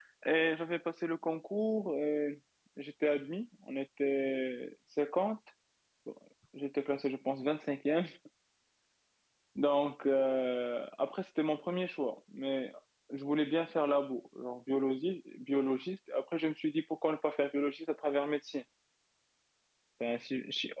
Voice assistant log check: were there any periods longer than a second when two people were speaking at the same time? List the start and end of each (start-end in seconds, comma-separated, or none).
none